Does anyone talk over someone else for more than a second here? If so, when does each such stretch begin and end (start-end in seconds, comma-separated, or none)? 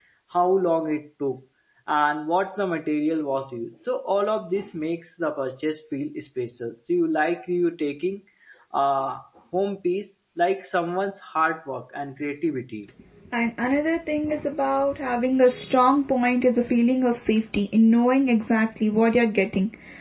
none